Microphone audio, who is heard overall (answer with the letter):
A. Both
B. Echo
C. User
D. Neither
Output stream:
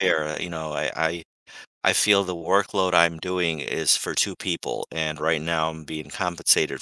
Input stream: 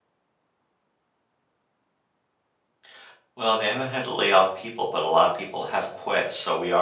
C